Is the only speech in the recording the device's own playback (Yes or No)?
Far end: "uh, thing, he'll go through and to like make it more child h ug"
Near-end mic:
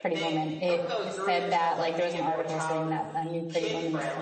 No